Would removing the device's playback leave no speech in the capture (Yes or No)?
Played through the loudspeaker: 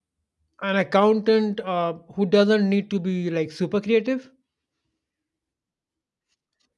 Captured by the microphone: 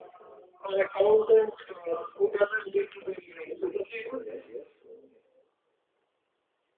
No